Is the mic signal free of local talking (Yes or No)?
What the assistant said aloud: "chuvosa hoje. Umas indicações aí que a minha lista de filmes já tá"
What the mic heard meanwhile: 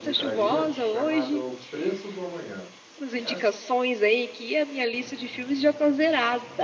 No